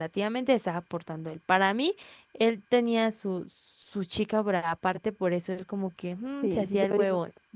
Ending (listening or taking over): taking over